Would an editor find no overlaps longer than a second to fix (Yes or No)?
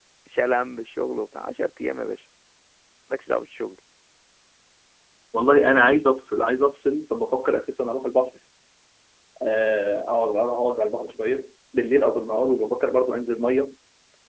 Yes